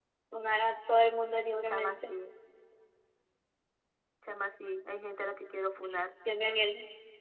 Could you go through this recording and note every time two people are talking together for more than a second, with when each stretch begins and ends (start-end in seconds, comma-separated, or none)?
none